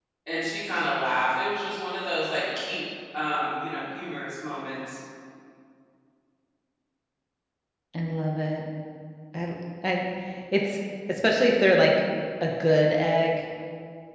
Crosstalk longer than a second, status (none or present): none